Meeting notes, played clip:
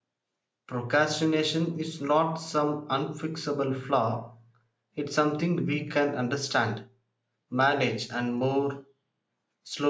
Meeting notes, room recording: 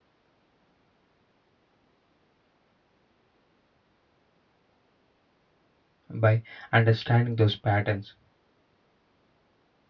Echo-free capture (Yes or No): Yes